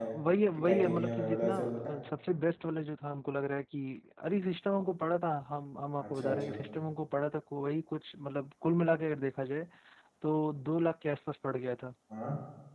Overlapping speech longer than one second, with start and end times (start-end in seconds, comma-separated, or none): 0.6-2.0